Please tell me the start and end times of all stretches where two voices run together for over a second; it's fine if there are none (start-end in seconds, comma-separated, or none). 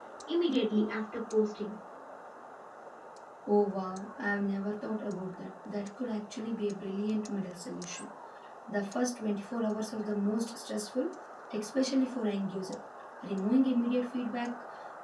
none